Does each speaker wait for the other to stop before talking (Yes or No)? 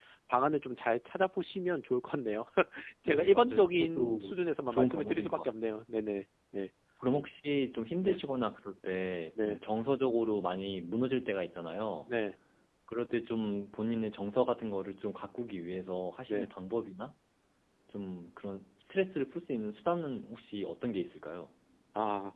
No